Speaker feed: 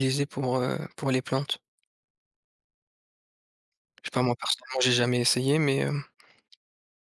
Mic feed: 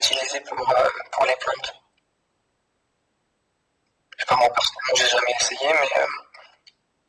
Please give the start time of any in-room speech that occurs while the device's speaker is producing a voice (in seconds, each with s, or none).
none